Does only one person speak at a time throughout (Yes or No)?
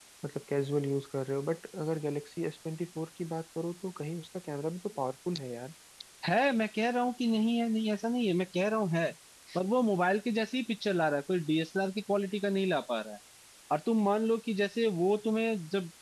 Yes